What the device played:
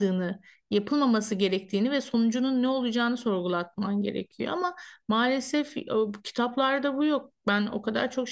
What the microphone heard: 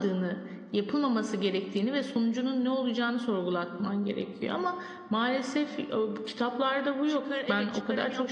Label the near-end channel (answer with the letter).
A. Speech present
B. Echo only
A